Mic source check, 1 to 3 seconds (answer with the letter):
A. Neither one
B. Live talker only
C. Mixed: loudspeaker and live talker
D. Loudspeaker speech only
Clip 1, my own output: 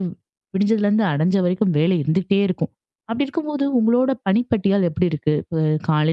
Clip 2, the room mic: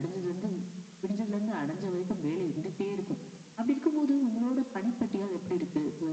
D